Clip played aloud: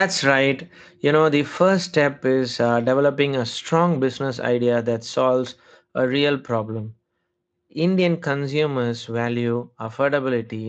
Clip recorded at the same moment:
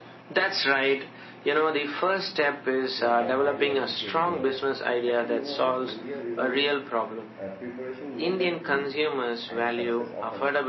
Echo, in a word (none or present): present